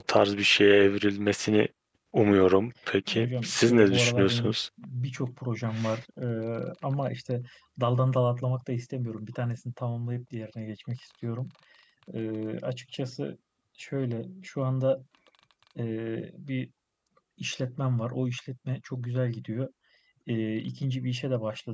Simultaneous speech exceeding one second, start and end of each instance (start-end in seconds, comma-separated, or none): 3.1-4.5